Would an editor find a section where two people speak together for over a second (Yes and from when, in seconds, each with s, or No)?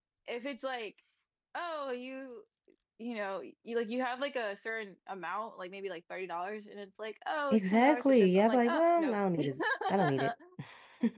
Yes, from 7.5 s